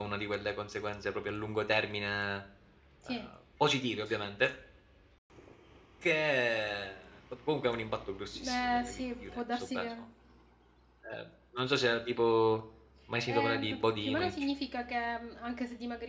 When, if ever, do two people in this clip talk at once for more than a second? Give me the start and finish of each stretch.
8.5-9.9, 13.3-14.5

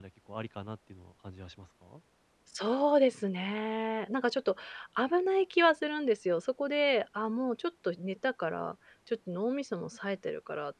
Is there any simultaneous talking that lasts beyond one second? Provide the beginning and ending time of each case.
none

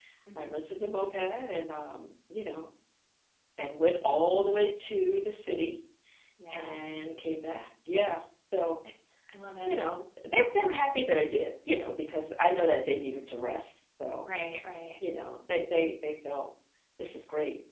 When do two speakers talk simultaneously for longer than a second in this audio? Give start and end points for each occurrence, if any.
none

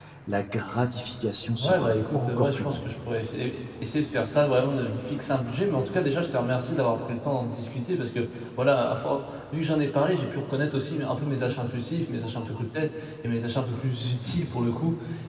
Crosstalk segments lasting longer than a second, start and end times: 1.6-2.9

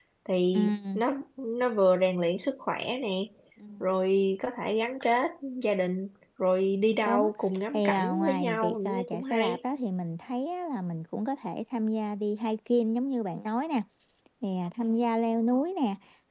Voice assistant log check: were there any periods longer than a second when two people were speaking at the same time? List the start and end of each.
7.7-9.6

